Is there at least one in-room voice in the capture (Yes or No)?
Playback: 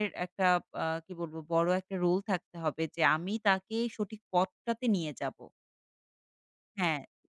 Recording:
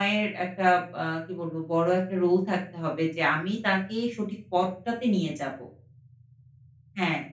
No